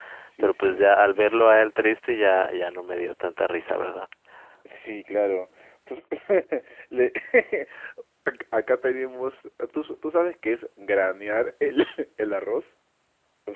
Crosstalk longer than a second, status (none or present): none